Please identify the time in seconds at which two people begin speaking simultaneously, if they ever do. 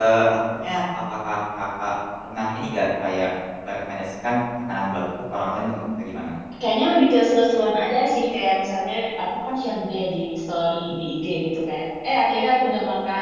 none

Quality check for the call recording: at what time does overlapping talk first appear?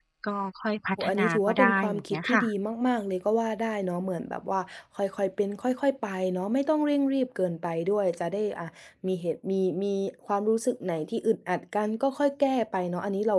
1.0 s

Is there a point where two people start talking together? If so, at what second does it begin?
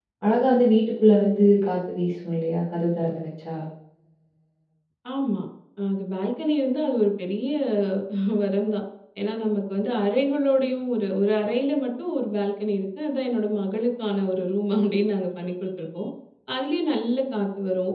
none

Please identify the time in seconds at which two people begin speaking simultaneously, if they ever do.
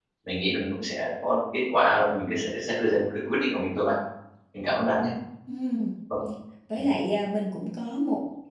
none

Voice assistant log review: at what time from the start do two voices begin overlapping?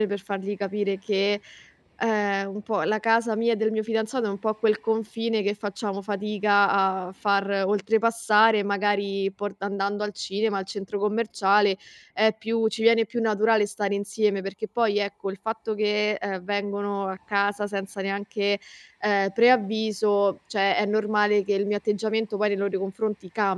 none

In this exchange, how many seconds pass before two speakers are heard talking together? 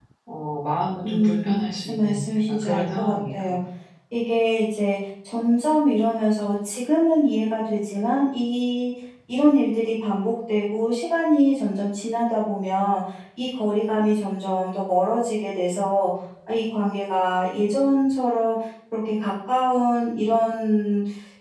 1.0 s

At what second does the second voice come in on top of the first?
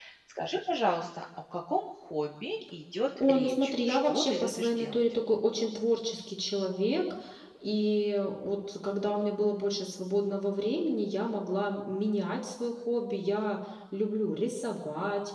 3.2 s

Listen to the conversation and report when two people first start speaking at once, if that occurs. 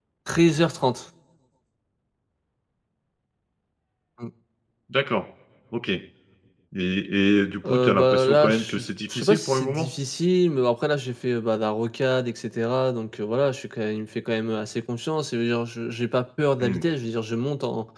7.6 s

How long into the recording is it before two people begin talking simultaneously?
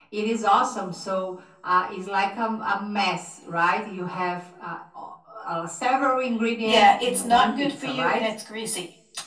6.6 s

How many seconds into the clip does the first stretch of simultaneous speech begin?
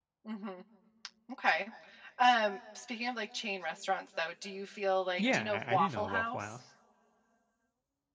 5.2 s

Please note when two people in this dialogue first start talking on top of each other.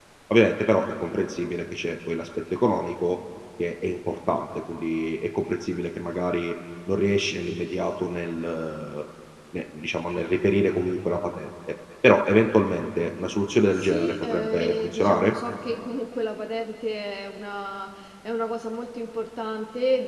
13.7 s

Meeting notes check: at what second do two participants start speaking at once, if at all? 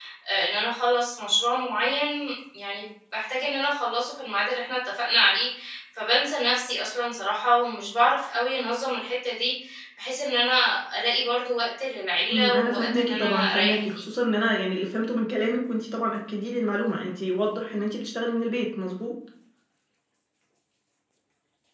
12.3 s

